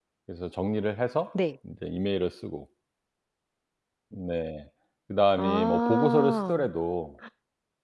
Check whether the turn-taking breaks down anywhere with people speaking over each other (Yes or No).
Yes